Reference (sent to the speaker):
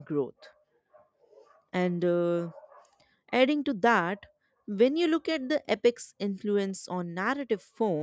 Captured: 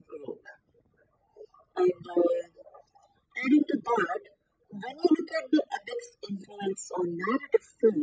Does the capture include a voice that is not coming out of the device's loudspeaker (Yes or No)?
No